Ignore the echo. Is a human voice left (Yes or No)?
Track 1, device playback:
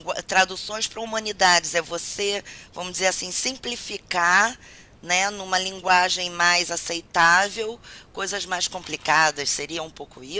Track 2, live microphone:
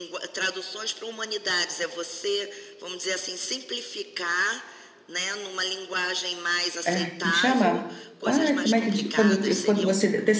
Yes